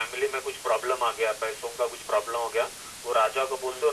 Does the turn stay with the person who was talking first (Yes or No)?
Yes